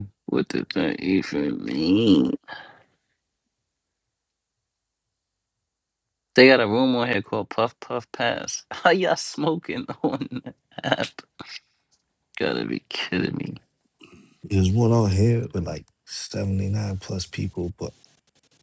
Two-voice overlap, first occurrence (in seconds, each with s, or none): none